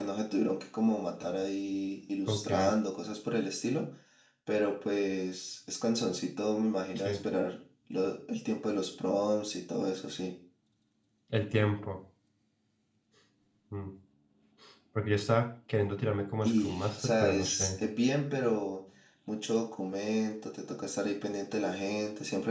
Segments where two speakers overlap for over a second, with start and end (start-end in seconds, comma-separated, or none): 16.4-17.7